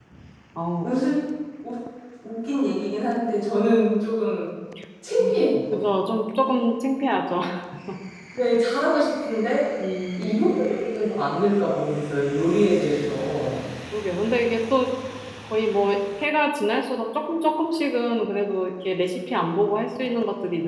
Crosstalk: none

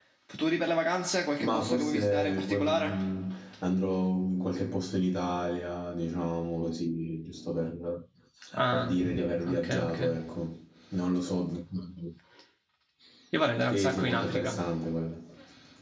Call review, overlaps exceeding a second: present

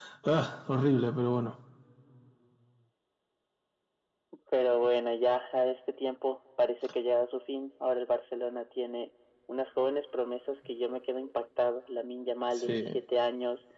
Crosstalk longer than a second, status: none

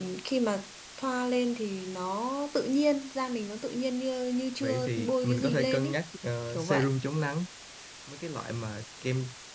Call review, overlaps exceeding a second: present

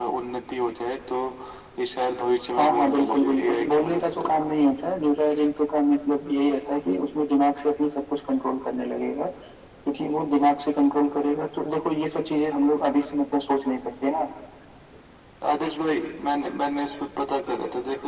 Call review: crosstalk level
present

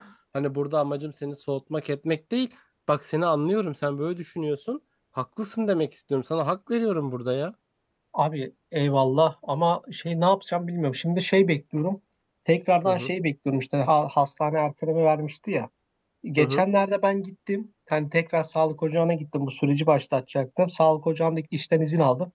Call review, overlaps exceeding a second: none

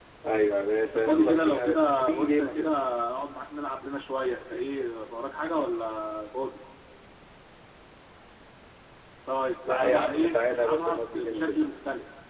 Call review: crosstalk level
present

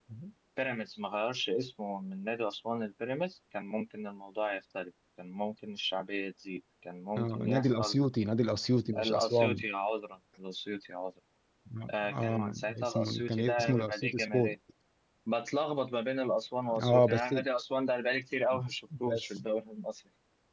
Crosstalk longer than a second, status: present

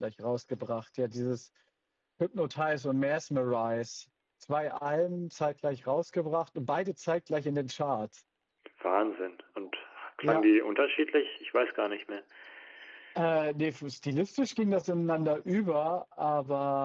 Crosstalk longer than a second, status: none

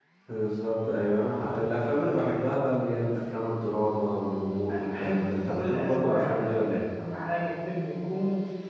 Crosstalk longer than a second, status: present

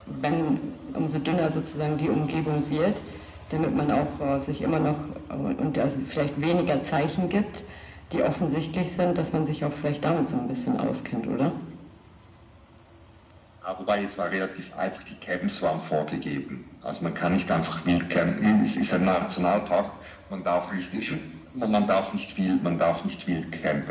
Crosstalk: none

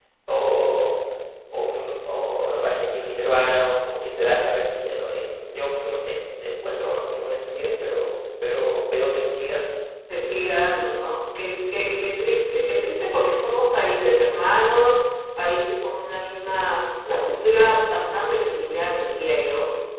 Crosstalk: none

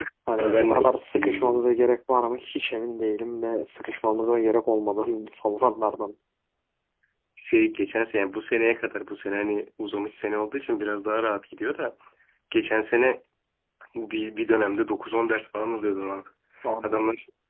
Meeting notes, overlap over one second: present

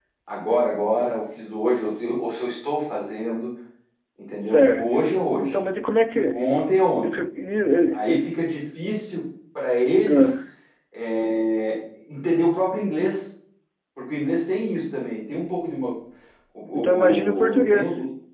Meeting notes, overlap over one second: present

